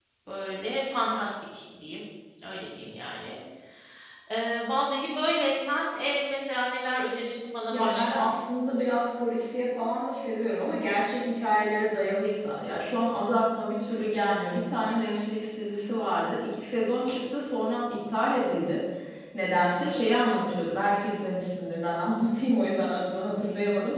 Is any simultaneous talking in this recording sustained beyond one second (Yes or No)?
No